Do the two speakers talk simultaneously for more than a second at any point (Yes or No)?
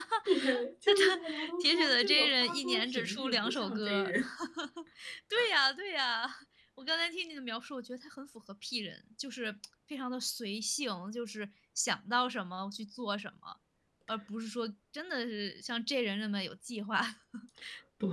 Yes